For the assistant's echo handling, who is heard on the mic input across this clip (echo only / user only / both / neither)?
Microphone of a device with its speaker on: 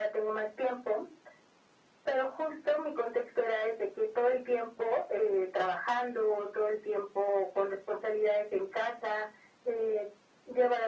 echo only